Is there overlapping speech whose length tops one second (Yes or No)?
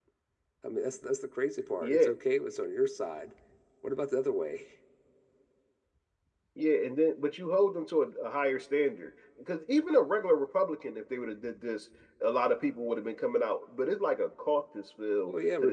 No